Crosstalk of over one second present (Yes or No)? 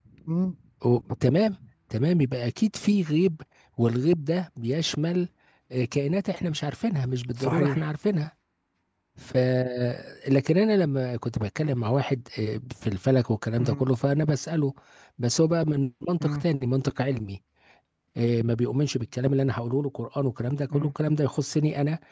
No